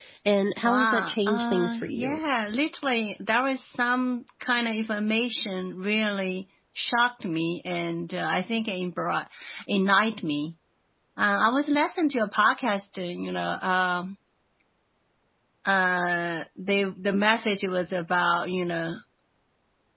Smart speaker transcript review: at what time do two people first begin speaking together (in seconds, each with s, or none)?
0.6 s